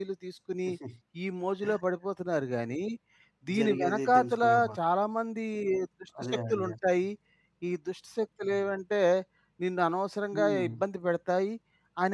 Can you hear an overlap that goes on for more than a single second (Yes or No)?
Yes